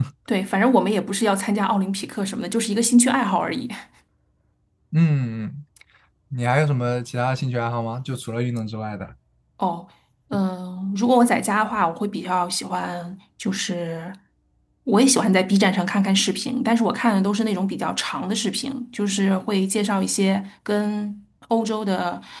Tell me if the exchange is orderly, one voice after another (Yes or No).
Yes